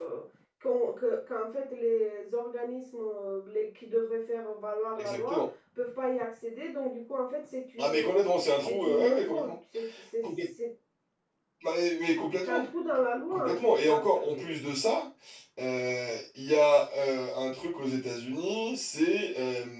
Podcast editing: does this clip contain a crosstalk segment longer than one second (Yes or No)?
Yes